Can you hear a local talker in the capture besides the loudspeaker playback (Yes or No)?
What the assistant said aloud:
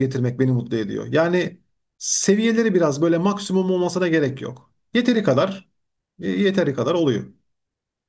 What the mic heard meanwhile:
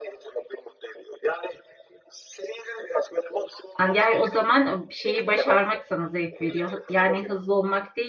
Yes